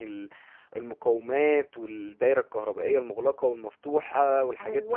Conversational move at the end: taking over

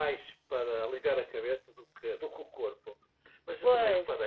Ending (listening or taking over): listening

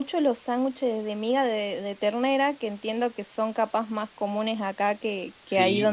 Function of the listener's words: taking over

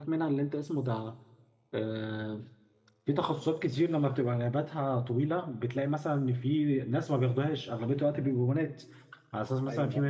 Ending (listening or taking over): listening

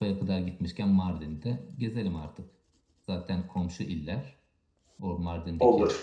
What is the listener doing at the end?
listening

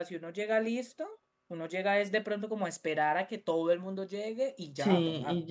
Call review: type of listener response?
taking over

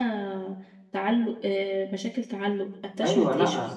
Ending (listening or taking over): taking over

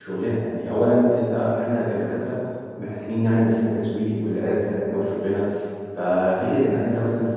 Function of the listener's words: listening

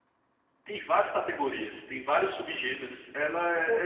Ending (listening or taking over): taking over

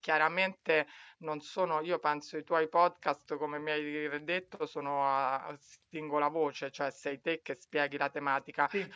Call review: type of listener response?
listening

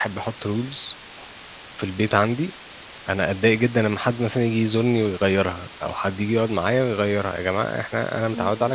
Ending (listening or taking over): listening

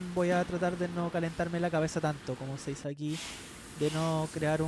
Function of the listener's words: listening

